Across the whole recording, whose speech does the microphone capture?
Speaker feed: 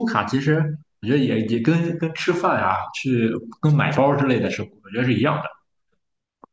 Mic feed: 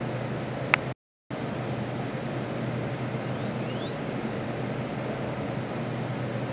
neither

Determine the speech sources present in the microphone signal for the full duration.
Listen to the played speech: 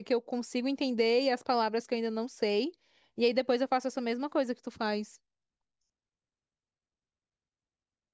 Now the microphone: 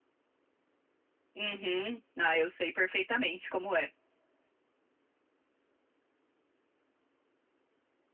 user only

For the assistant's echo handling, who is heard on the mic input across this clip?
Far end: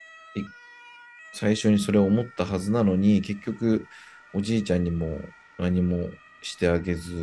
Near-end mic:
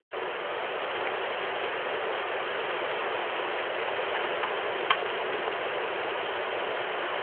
neither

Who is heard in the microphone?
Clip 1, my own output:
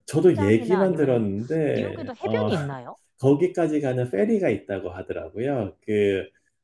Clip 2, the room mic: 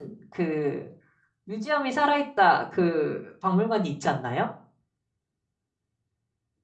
user only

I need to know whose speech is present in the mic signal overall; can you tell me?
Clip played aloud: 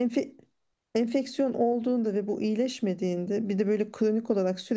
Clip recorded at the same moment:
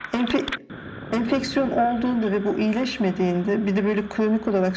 echo only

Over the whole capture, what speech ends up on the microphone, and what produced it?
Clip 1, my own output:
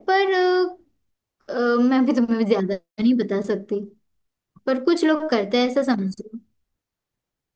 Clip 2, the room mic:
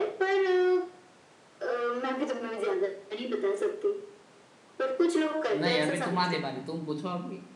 both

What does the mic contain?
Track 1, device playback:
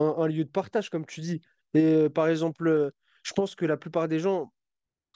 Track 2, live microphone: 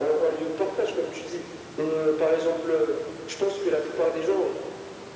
echo only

